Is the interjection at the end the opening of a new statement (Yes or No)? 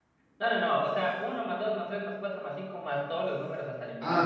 Yes